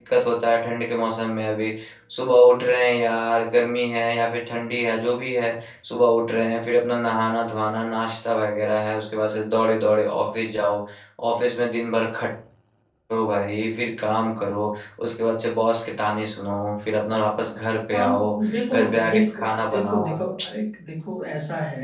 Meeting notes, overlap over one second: present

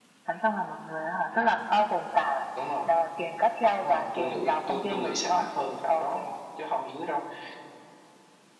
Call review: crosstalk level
present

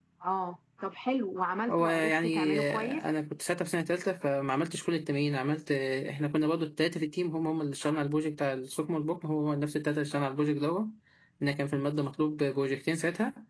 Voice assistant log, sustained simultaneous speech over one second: present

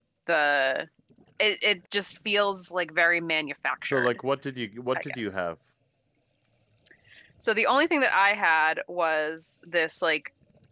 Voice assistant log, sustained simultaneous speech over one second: none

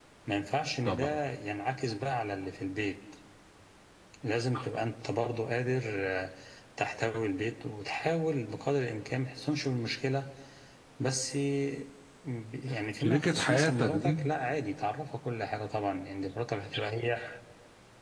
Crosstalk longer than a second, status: present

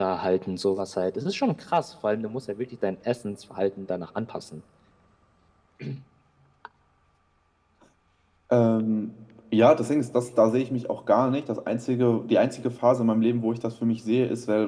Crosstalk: none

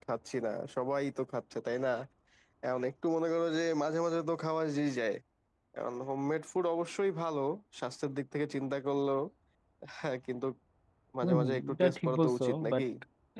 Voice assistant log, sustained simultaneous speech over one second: present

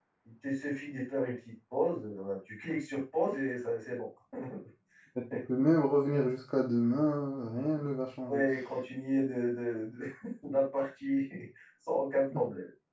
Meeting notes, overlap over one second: none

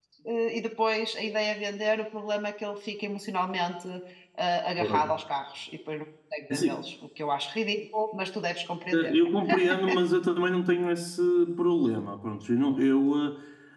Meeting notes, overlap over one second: none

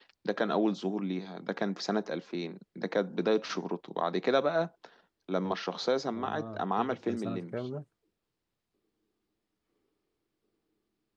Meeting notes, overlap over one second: present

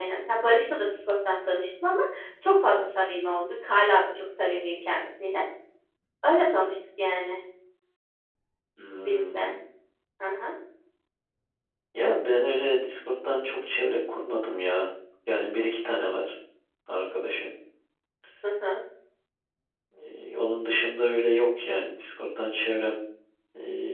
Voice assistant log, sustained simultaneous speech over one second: none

